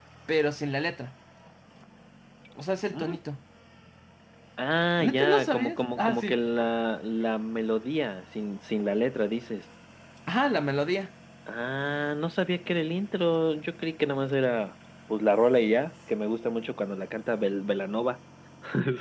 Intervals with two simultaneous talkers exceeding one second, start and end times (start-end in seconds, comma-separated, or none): 5.0-6.4